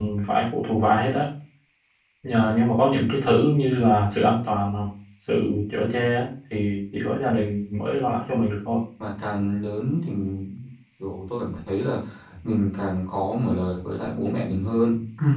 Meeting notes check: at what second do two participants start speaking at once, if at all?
none

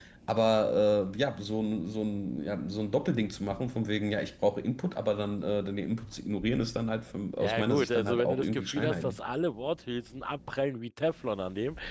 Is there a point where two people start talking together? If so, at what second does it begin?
7.4 s

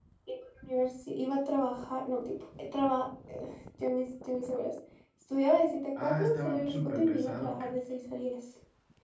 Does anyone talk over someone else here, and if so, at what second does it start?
6.0 s

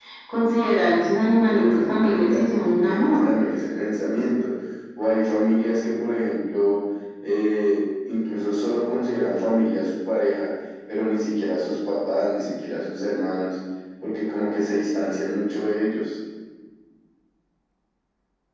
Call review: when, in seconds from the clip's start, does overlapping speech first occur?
1.4 s

